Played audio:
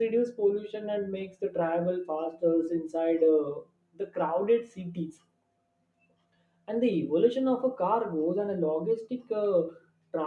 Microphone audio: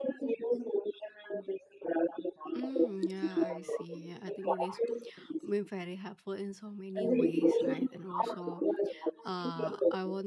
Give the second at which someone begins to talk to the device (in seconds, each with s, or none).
2.5 s